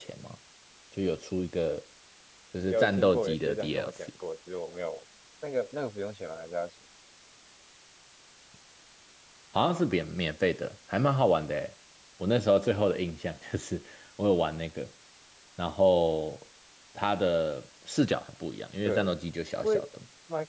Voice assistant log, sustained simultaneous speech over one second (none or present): present